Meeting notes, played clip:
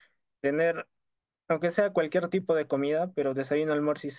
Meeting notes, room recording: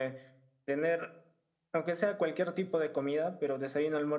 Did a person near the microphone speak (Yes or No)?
No